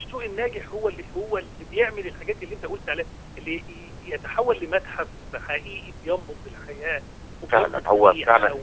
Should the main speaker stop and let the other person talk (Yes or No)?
Yes